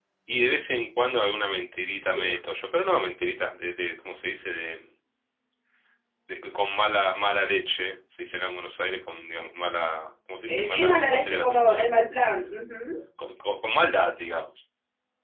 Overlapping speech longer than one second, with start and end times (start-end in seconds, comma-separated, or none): 10.5-11.9